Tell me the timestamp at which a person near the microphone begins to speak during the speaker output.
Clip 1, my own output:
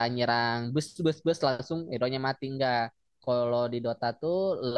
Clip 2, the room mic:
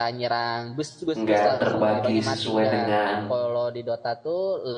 1 s

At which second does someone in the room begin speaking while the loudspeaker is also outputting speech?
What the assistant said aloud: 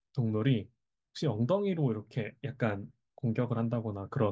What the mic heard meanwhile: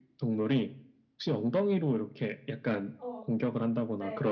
3 s

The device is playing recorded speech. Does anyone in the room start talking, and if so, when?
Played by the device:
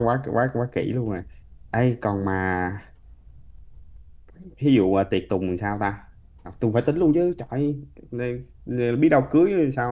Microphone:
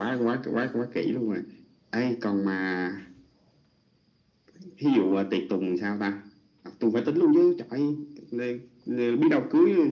none

